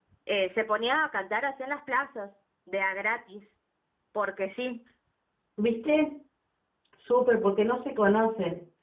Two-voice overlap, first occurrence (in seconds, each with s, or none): none